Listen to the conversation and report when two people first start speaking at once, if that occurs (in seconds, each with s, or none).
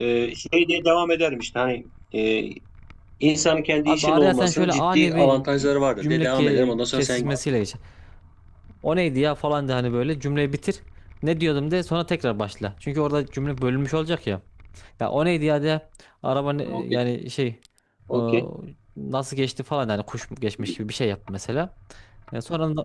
3.9 s